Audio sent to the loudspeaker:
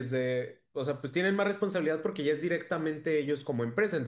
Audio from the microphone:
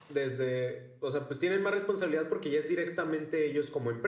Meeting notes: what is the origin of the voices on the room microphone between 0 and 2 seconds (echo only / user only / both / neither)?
echo only